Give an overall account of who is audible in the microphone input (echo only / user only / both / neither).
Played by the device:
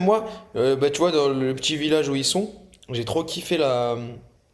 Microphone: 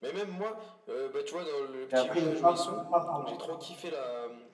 both